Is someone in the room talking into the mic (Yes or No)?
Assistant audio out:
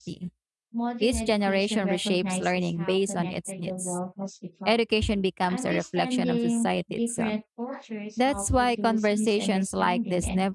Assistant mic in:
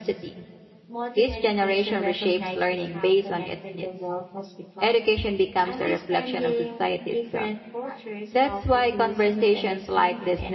No